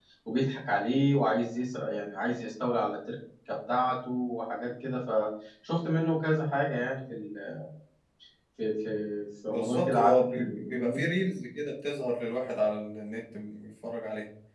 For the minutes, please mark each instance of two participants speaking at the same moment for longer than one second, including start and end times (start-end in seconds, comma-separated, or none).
9.5-11.1